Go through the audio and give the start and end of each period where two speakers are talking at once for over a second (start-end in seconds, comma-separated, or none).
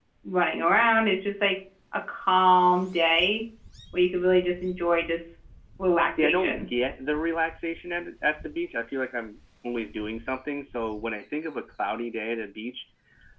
none